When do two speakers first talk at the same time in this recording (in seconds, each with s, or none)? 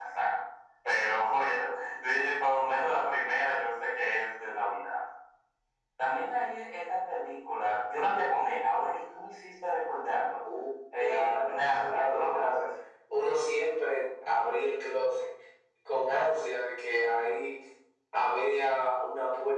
11.0 s